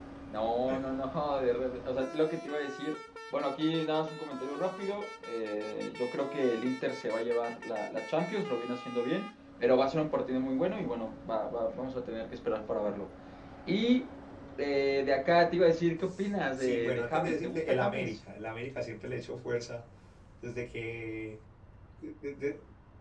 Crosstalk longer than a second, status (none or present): present